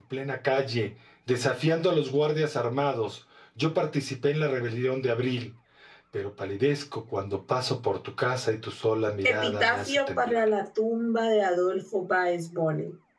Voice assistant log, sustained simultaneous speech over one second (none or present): present